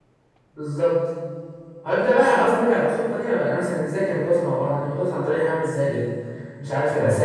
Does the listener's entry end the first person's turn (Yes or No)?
No